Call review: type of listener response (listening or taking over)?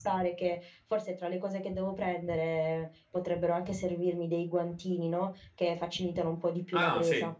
taking over